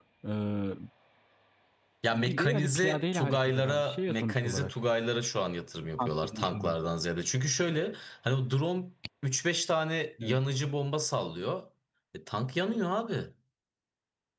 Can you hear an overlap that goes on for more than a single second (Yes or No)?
Yes